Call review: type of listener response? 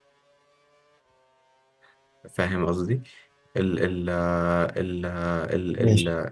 listening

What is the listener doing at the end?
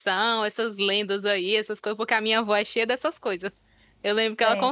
listening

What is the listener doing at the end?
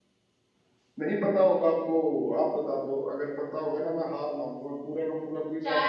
taking over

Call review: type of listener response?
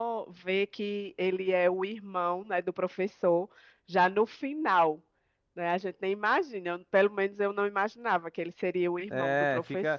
taking over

